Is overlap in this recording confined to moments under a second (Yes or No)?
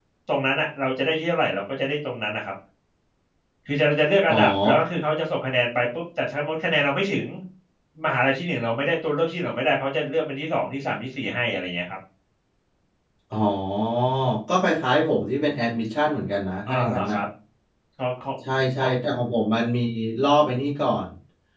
Yes